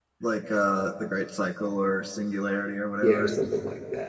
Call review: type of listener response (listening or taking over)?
taking over